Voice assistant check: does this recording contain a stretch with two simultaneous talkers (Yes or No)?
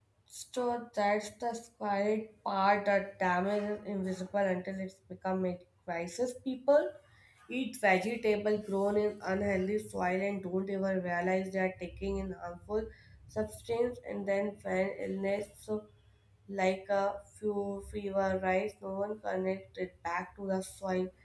No